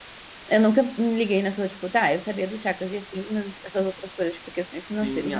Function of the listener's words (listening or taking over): taking over